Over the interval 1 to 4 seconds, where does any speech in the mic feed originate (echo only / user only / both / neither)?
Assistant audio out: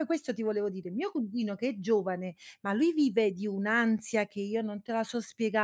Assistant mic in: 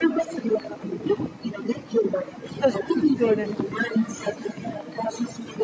both